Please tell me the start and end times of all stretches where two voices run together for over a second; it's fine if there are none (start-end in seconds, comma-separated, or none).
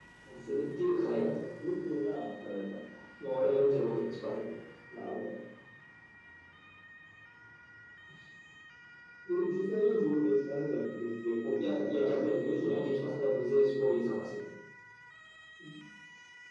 none